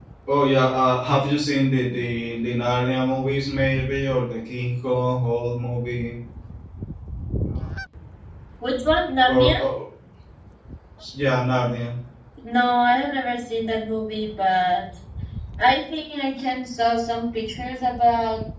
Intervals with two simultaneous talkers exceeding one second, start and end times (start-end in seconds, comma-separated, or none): none